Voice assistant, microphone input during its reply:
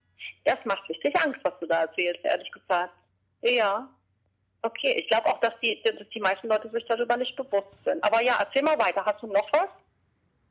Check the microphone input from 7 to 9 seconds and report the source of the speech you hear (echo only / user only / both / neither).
echo only